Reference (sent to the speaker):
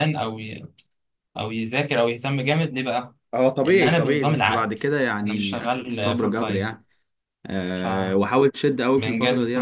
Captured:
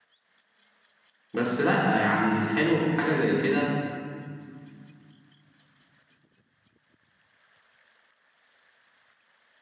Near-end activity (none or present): present